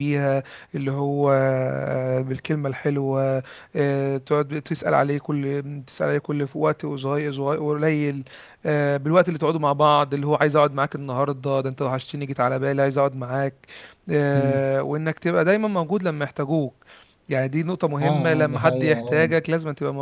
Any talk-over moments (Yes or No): Yes